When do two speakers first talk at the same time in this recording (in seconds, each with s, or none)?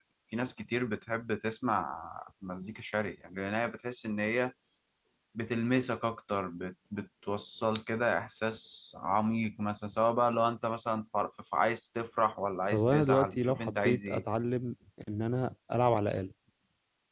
12.7 s